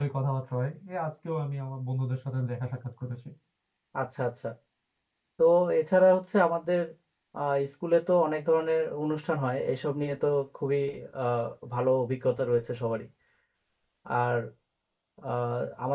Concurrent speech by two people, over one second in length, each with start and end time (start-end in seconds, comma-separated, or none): none